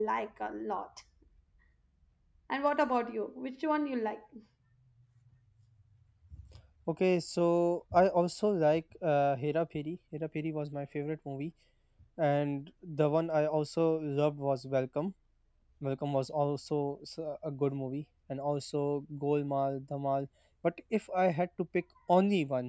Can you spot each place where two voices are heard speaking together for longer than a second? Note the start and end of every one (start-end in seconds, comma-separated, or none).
none